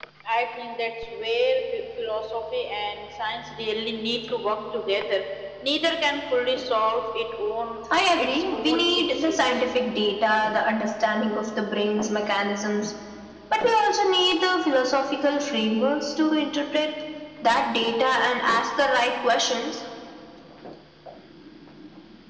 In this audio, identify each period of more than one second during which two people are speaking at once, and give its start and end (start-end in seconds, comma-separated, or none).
8.2-9.4